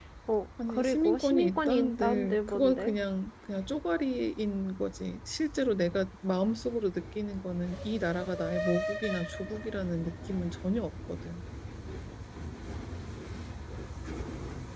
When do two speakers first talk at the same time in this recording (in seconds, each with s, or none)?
0.7 s